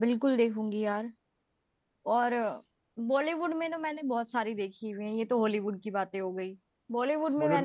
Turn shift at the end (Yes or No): No